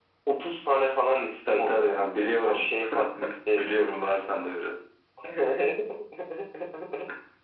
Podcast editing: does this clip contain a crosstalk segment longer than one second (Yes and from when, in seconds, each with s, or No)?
Yes, from 1.5 s